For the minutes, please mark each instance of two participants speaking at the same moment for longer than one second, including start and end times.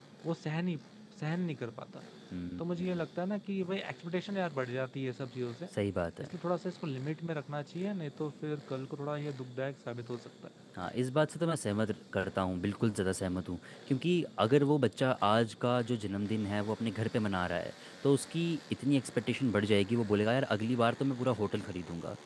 none

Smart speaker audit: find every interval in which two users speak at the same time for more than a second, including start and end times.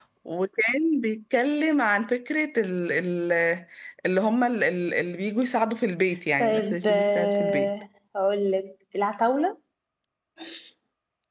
6.4-7.7

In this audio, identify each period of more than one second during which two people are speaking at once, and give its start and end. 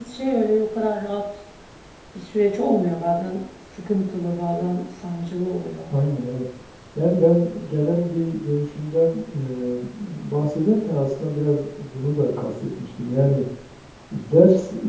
none

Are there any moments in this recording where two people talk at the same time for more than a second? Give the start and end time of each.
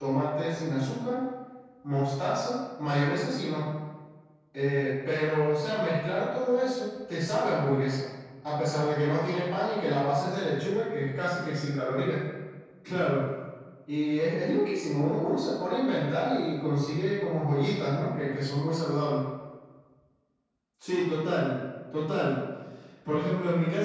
none

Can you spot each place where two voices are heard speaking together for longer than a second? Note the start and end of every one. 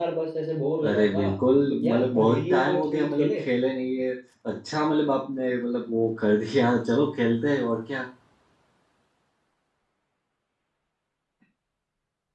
1.8-3.4

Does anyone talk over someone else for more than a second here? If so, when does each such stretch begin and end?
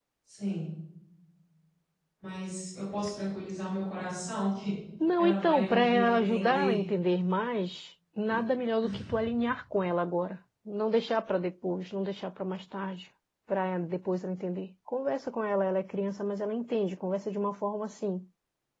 5.2-6.8

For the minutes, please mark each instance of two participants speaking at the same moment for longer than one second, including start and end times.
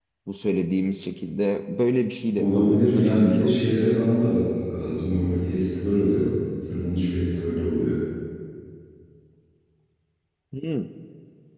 2.4-3.6

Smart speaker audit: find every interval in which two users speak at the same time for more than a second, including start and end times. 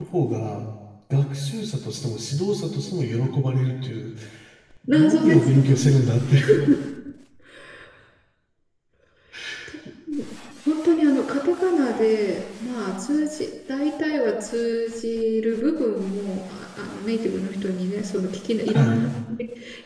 4.9-6.1

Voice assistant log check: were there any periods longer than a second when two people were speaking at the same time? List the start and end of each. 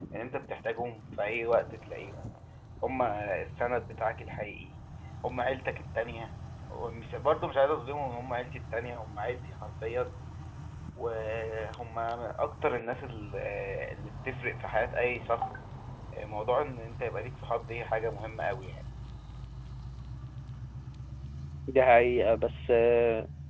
none

